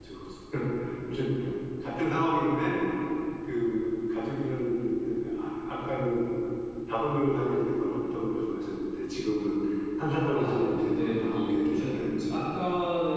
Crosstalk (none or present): present